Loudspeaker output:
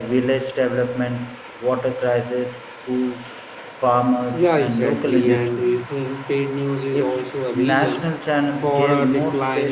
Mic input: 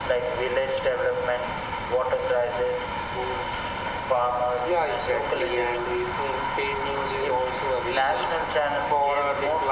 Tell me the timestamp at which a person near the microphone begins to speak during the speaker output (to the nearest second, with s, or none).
none